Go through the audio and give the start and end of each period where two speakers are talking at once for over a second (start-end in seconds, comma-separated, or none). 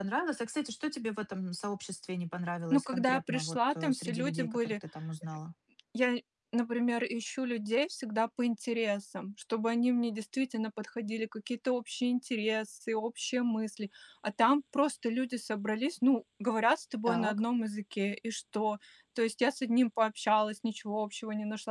2.7-4.7